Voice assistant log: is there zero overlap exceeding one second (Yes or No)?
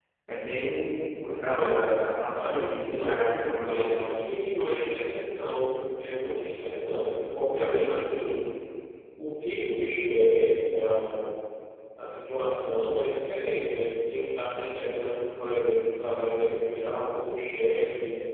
No